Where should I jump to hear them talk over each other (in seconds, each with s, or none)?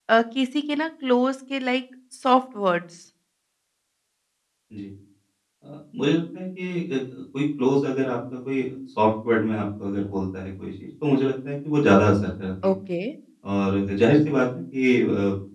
none